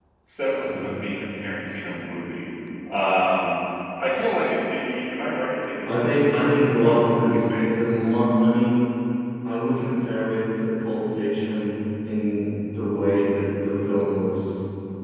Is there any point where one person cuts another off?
Yes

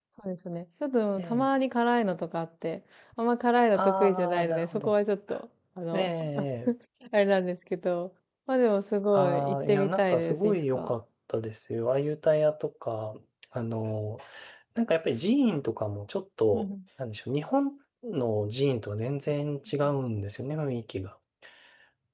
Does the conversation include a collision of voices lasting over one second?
Yes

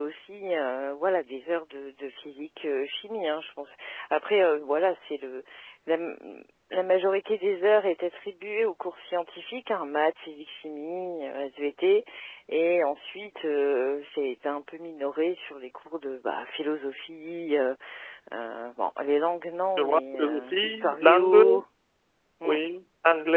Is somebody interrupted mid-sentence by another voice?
Yes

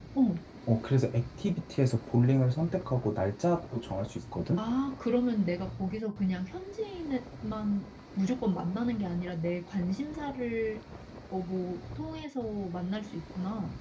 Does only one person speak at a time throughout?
Yes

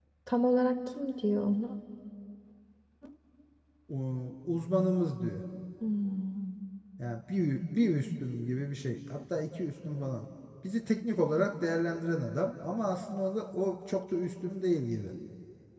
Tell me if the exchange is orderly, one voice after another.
Yes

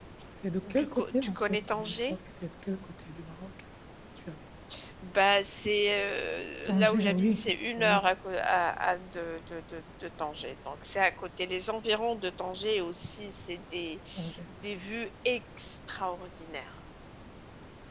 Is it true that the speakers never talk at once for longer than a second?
No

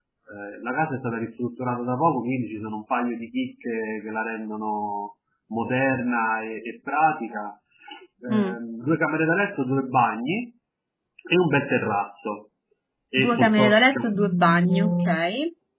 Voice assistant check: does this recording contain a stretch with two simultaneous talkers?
Yes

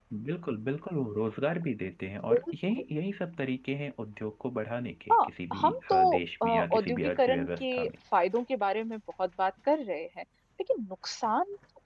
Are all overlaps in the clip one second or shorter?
No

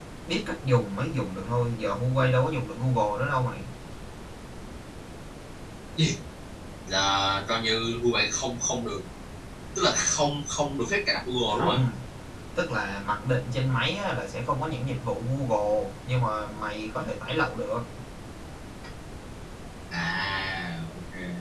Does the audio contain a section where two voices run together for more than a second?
No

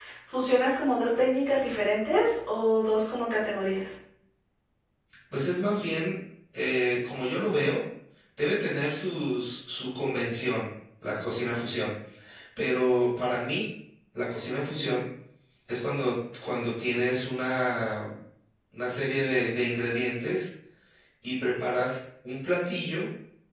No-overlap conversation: Yes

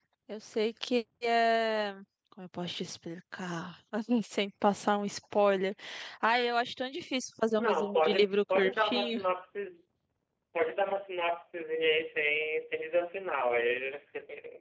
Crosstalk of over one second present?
Yes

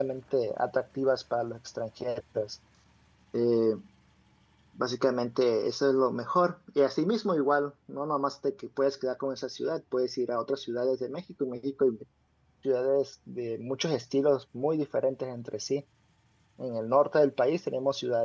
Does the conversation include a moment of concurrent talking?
No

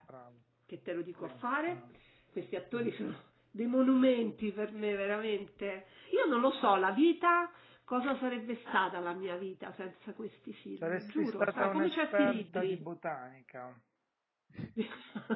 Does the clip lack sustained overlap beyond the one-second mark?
No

